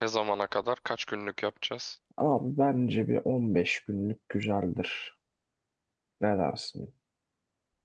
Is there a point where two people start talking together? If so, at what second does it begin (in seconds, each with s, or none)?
none